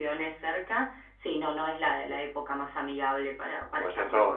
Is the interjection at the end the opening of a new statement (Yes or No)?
Yes